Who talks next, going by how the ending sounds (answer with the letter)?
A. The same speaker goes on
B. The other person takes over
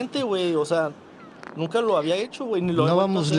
B